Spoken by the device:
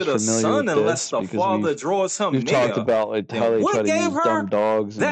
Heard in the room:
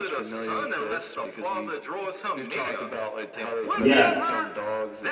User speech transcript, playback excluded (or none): Yeah.